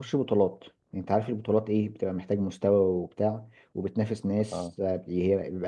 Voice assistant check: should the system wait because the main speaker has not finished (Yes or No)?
Yes